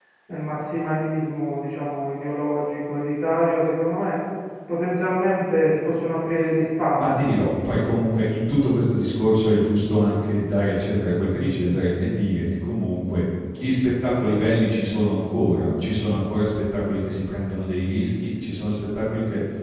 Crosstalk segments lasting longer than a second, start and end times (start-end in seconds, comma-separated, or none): 6.9-8.2